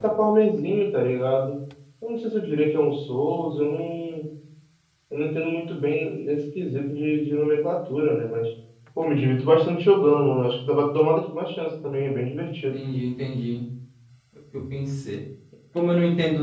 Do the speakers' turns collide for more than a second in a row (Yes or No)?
No